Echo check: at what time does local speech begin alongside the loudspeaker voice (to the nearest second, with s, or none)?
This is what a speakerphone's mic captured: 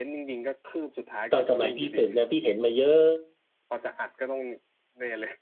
1 s